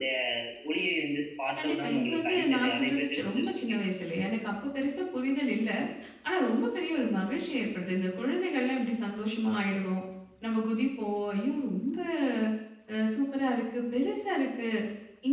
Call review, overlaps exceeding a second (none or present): present